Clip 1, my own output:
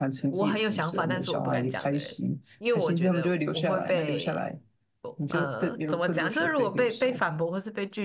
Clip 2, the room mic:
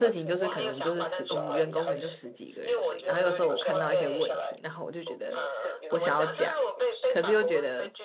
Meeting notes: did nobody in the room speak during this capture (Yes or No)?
No